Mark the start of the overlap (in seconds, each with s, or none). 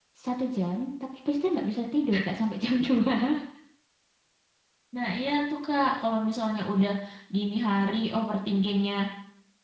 none